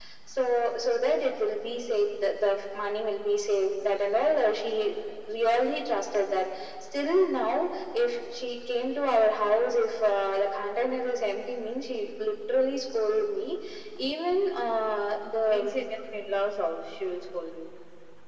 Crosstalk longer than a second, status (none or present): none